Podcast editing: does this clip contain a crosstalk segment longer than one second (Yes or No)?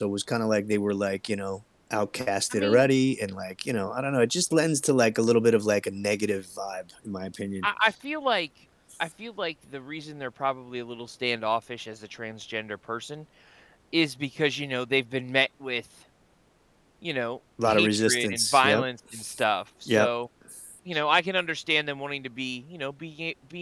Yes